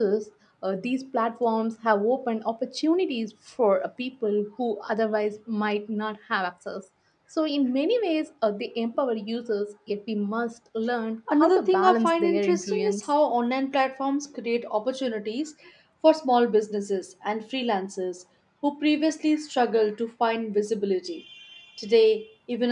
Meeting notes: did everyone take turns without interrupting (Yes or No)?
No